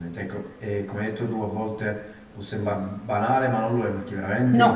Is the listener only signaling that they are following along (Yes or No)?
Yes